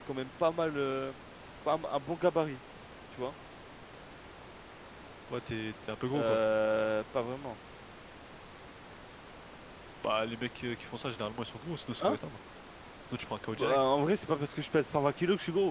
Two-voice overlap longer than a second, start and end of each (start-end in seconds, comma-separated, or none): none